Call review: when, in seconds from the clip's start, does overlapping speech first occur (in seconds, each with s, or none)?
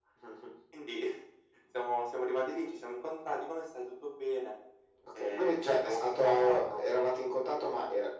5.2 s